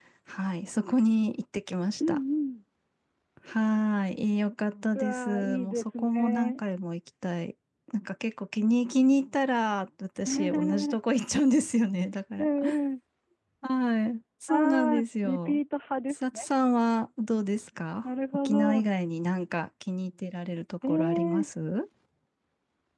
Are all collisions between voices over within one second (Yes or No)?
No